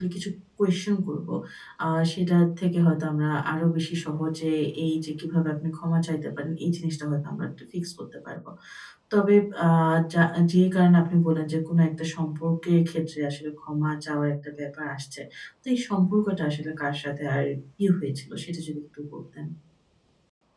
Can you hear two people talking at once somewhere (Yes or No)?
No